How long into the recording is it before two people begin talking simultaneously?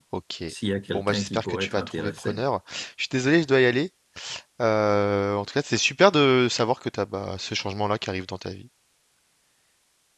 0.9 s

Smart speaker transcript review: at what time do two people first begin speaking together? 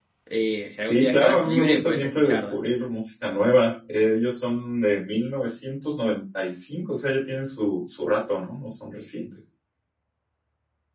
0.9 s

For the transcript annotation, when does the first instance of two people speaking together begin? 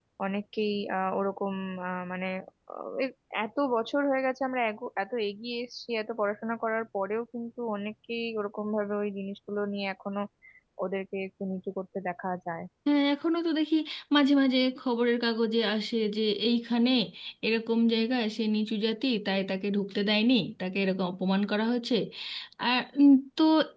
none

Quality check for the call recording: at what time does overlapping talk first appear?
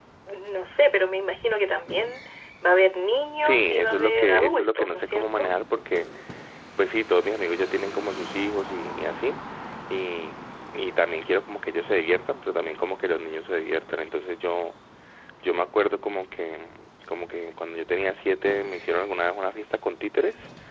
3.4 s

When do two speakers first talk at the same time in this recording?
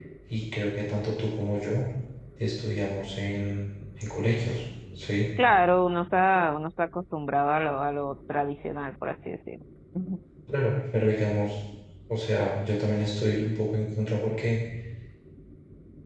none

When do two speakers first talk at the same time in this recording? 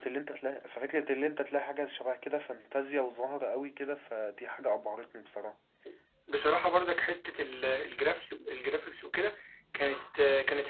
none

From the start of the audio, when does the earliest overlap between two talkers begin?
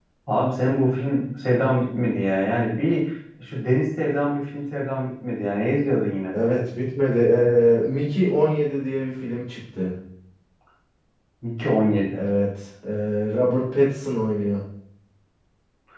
none

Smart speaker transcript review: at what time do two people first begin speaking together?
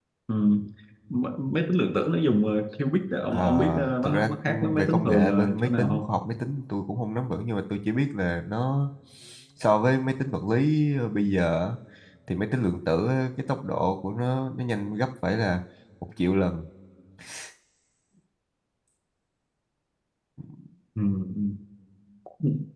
3.3 s

